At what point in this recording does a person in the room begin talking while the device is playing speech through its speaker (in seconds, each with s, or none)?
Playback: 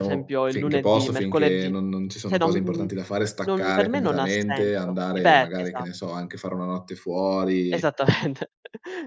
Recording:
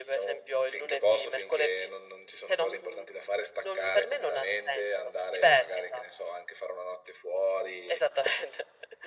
none